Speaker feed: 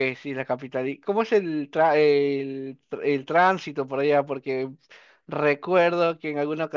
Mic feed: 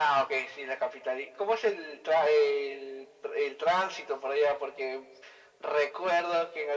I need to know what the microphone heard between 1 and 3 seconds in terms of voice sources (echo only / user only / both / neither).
echo only